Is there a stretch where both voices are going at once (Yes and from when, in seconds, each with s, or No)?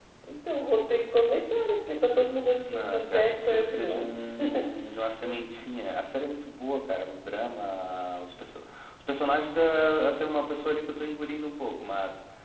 Yes, from 2.7 s